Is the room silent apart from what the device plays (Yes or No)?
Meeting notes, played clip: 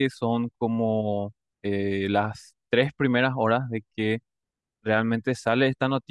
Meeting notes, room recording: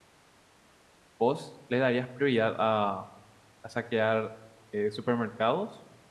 No